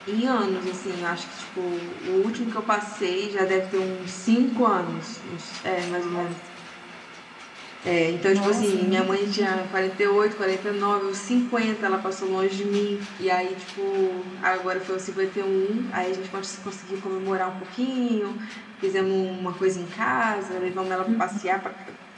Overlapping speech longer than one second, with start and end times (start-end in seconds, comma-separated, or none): 8.3-9.7